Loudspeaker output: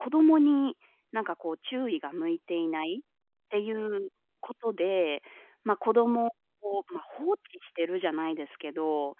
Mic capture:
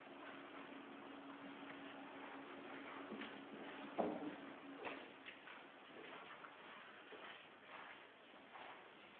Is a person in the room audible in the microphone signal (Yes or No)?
No